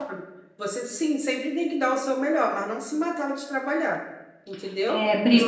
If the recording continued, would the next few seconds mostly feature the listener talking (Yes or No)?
Yes